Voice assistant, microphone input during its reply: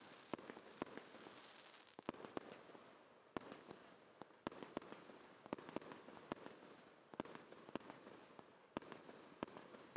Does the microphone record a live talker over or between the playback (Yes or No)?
No